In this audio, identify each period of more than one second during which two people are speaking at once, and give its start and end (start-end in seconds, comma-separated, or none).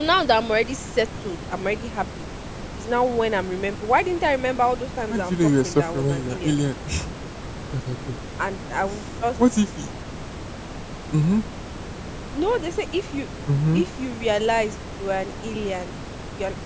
5.1-6.5